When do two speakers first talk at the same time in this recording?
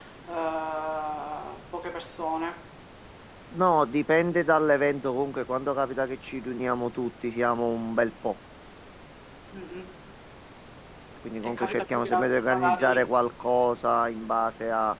11.4 s

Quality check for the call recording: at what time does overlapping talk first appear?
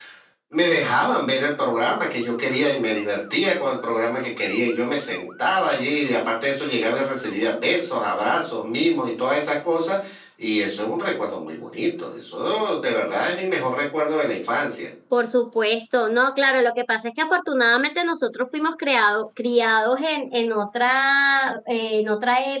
none

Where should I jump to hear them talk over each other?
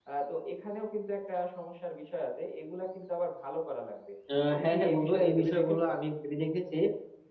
4.5 s

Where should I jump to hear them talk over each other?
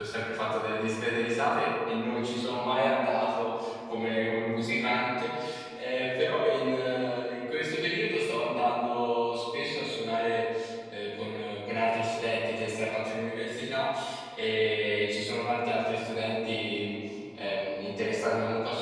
none

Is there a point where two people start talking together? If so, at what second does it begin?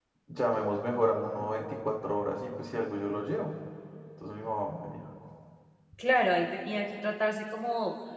none

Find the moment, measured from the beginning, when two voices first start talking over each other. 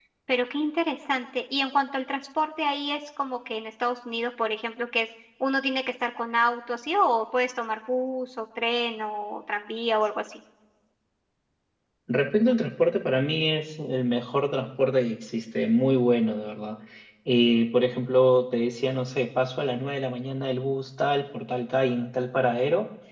none

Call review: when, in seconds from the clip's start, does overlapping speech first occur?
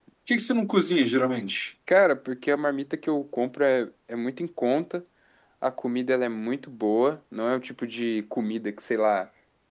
none

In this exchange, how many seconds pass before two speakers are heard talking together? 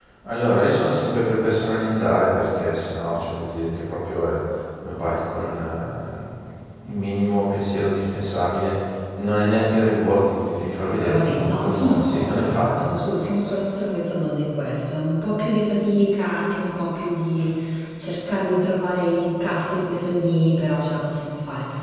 10.8 s

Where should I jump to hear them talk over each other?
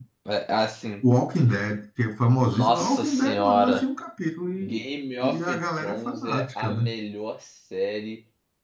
2.4 s

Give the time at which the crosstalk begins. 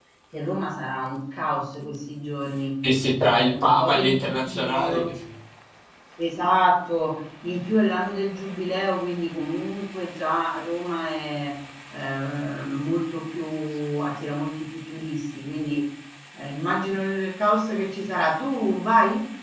3.2 s

